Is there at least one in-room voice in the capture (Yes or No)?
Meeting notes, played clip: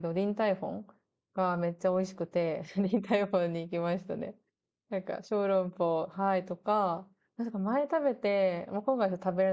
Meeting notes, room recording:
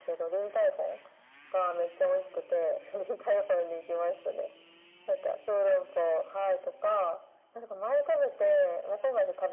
No